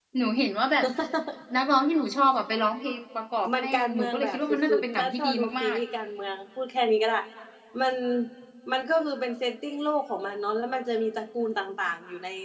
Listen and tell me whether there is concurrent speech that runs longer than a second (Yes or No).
Yes